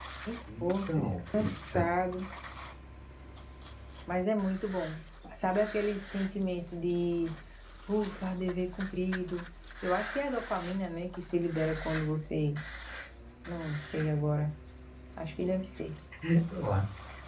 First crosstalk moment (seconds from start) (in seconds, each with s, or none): 0.6 s